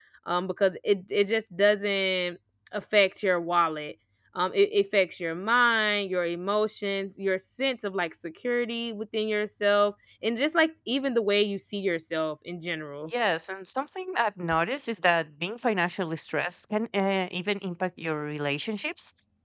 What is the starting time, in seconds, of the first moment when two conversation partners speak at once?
none

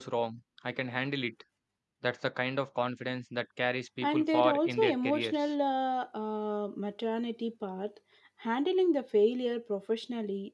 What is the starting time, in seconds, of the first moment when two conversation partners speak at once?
4 s

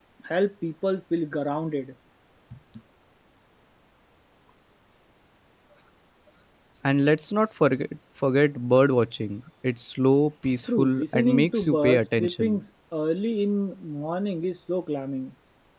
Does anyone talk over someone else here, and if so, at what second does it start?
11 s

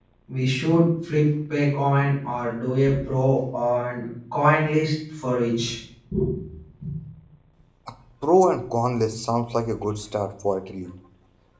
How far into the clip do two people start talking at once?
none

